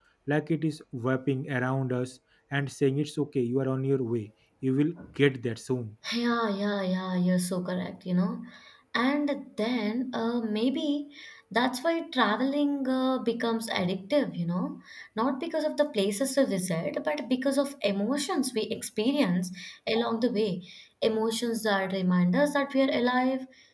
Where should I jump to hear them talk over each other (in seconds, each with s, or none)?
none